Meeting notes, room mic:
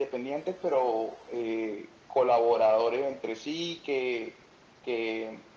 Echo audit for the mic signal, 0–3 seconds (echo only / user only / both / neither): echo only